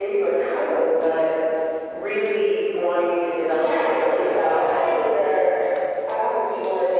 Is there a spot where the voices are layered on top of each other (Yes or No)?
Yes